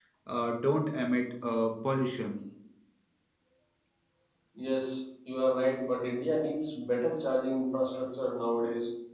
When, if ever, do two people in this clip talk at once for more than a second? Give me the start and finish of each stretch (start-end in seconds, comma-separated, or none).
none